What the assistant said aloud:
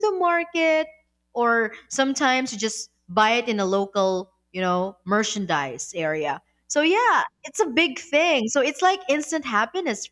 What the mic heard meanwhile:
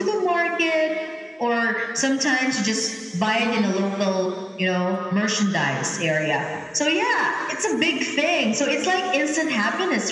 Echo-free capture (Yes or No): No